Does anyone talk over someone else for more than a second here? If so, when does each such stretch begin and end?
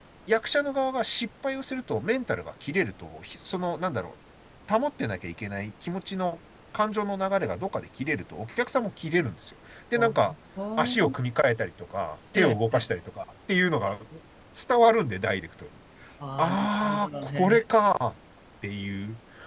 16.4-17.6

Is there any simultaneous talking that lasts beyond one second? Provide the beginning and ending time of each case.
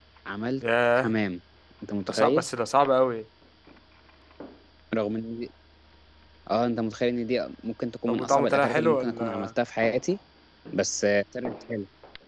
8.1-9.5

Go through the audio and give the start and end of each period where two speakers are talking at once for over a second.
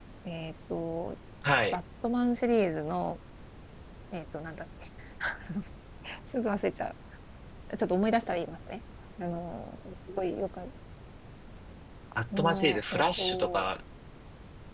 12.4-13.7

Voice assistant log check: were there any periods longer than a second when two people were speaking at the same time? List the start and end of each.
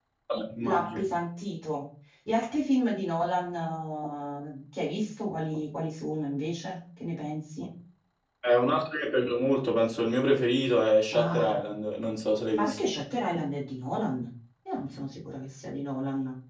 none

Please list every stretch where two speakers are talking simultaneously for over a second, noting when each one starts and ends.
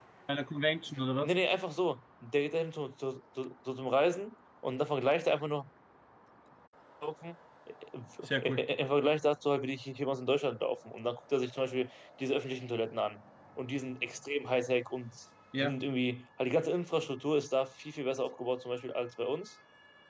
none

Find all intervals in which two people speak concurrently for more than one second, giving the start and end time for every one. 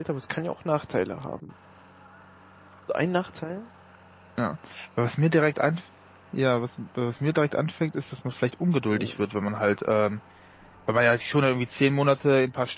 none

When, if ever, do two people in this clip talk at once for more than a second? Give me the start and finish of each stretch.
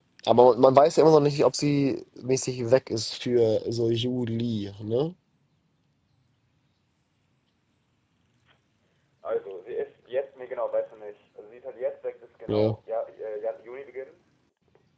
none

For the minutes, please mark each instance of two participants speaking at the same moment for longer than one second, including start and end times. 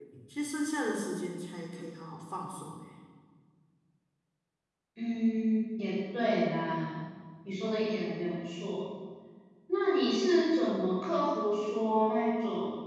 none

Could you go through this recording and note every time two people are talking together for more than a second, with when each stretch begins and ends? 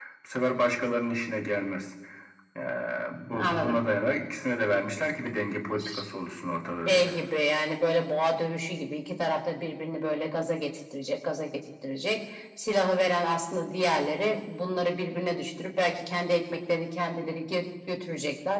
none

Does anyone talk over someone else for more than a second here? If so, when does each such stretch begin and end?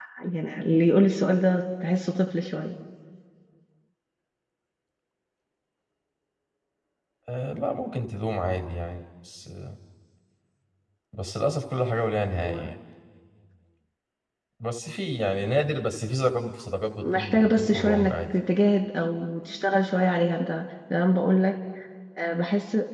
17.0-18.3

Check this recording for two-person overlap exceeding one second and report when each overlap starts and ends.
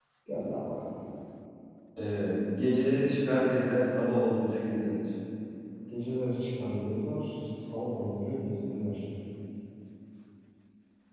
none

